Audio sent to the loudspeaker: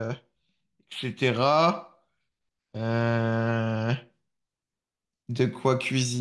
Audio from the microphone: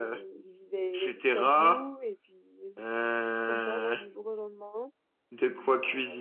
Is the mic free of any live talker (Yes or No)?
No